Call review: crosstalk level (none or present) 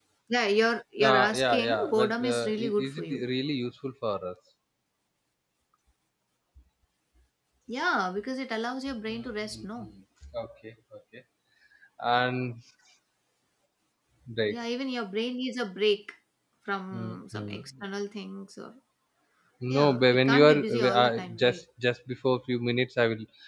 present